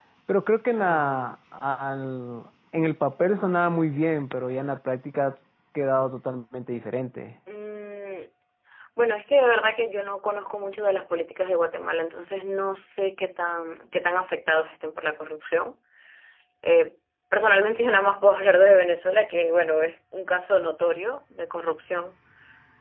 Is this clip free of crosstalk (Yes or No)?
Yes